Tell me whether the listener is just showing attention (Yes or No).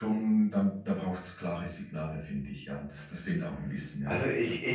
No